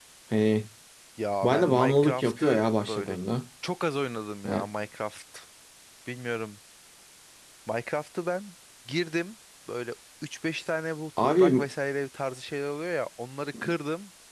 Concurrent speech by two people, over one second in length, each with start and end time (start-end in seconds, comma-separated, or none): 1.4-3.2